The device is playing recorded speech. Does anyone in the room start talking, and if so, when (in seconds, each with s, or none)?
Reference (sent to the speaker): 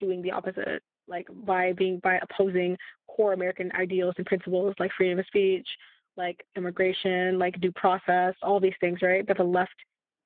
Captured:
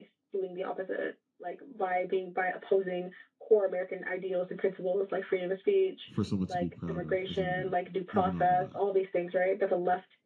6.1 s